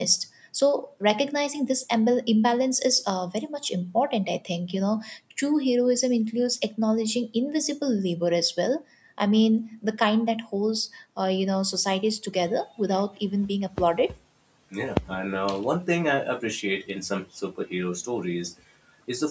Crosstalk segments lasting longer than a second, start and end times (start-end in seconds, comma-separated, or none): none